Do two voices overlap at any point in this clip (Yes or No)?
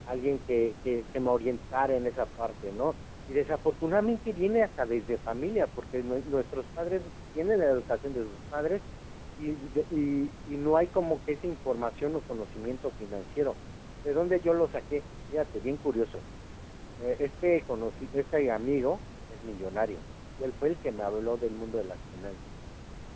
No